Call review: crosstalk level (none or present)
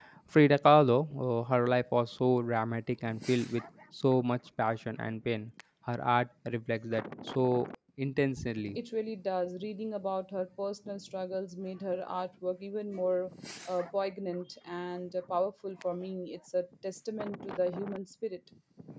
none